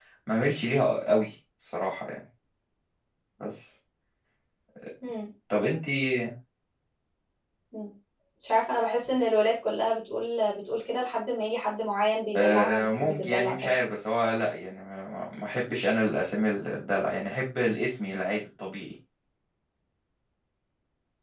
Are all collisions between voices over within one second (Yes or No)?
No